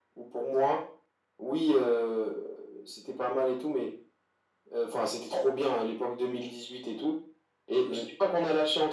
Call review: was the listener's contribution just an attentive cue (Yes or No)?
Yes